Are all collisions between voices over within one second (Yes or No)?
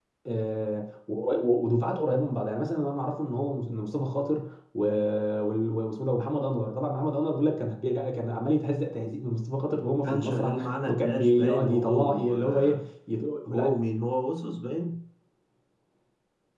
No